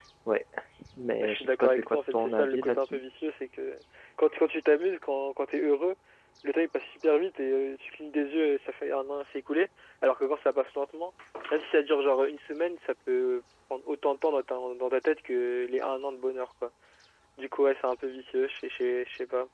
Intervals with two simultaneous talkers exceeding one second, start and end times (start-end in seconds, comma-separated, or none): 1.2-3.0